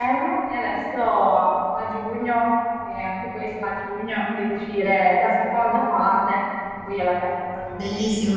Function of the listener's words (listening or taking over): taking over